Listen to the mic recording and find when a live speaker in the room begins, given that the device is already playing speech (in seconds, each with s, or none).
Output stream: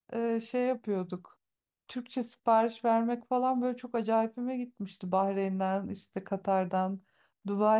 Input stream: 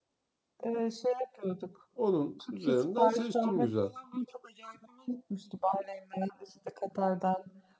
2.0 s